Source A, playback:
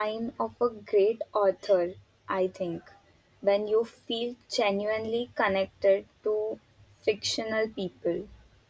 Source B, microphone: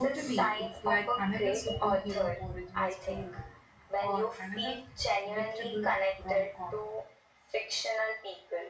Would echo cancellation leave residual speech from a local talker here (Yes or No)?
Yes